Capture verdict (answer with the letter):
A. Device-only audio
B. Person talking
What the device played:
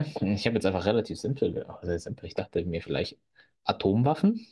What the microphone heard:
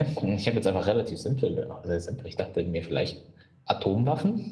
A